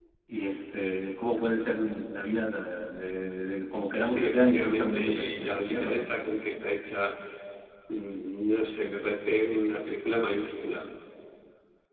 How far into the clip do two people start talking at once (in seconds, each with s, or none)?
4.0 s